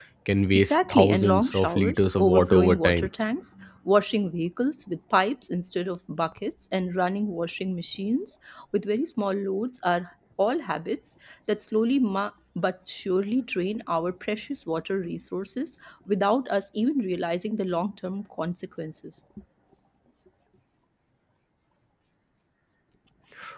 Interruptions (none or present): present